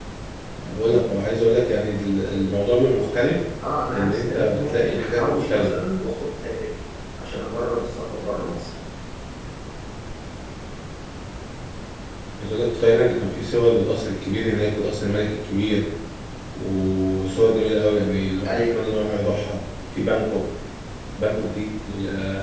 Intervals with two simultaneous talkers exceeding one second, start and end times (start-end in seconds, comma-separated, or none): 3.9-5.8